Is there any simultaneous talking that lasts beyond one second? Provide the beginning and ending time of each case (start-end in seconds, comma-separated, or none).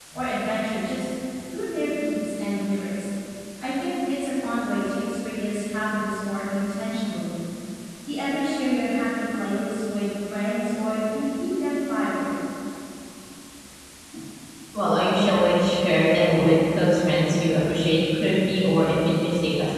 none